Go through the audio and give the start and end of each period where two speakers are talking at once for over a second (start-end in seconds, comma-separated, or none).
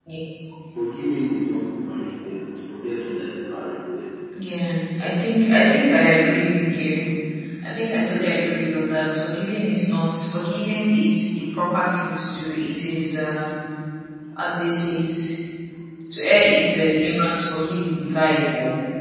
none